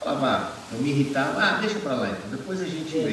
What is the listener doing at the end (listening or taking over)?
taking over